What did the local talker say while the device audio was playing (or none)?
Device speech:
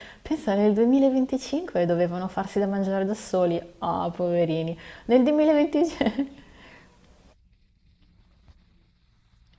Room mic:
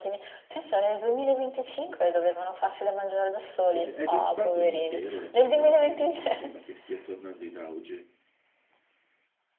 È già stato un impero la Cina e mi sembra che stia tornando in auge.